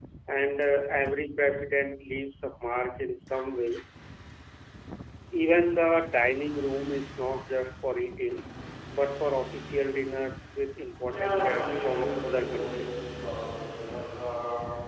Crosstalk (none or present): present